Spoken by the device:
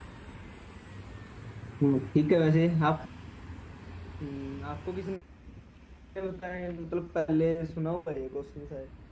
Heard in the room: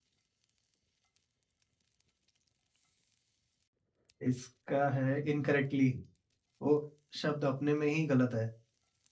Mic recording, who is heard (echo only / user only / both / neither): user only